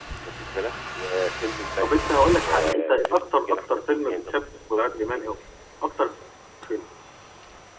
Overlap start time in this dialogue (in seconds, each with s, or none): 1.8 s